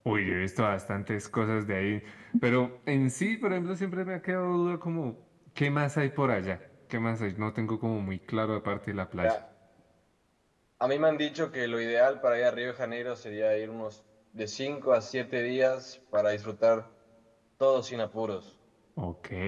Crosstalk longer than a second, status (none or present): none